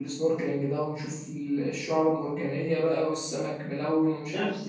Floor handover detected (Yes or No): Yes